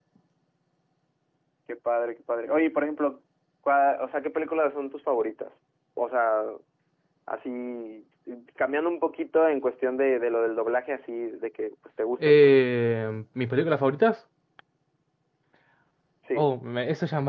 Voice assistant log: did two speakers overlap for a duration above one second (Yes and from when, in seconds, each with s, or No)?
No